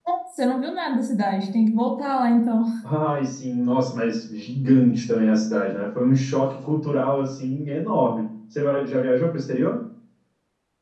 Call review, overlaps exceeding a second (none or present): none